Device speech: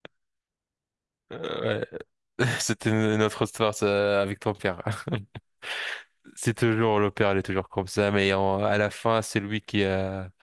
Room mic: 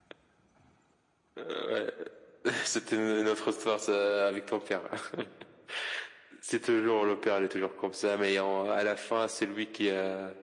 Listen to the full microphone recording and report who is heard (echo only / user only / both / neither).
echo only